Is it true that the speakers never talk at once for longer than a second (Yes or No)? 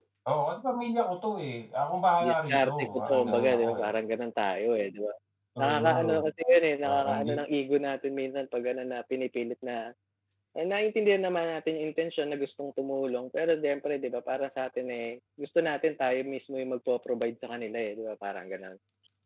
No